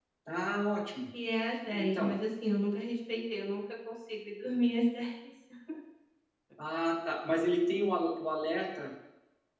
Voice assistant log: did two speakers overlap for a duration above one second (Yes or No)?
No